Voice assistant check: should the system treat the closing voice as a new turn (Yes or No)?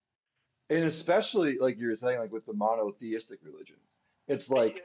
No